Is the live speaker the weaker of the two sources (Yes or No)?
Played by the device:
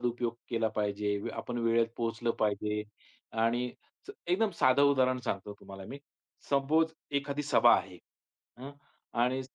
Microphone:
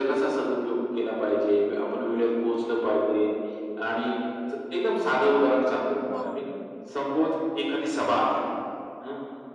Yes